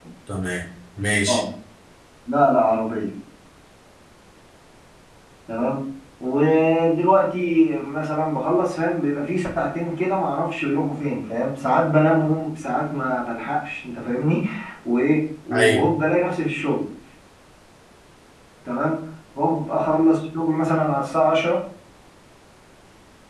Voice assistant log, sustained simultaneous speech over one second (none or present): none